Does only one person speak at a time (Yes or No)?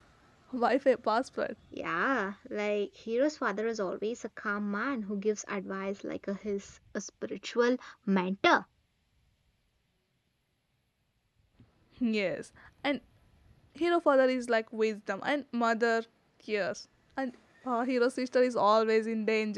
Yes